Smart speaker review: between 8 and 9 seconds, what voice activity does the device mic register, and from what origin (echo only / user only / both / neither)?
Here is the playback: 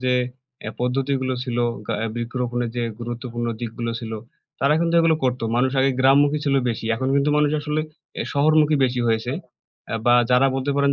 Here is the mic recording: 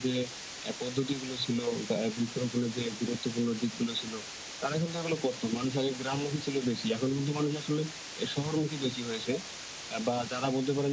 echo only